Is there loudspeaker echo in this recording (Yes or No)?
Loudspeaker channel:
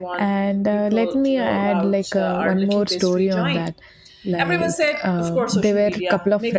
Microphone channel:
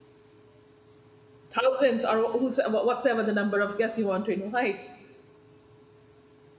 No